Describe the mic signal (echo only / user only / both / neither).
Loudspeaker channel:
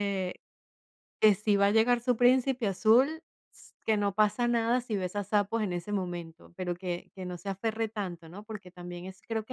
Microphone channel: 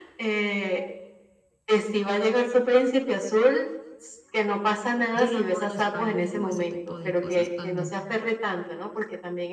both